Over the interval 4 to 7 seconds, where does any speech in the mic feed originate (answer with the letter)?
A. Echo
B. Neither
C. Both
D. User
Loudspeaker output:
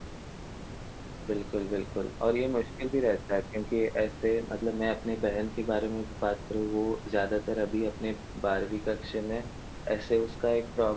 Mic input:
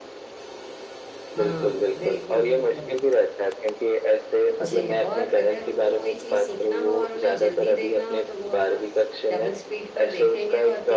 C